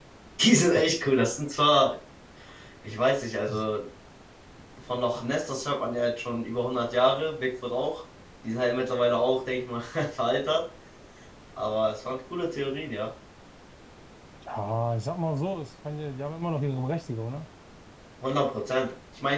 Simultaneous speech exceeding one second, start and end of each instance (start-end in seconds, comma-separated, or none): none